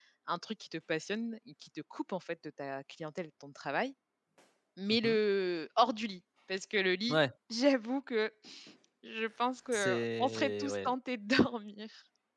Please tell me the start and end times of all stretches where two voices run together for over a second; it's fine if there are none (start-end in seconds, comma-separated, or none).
9.7-10.9